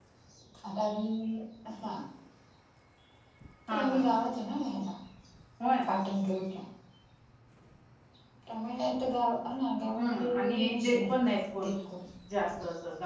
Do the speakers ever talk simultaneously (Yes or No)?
Yes